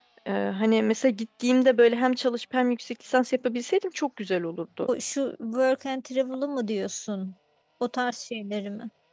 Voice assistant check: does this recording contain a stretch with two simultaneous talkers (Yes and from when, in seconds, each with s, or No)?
No